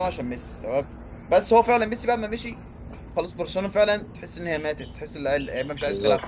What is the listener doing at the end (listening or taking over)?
taking over